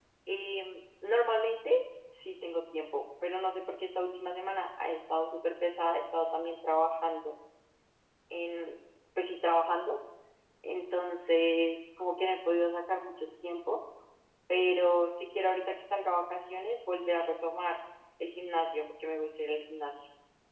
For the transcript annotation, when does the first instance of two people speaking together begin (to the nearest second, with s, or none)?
none